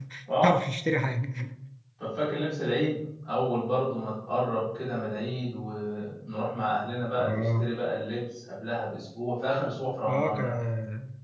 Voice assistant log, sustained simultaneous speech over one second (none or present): none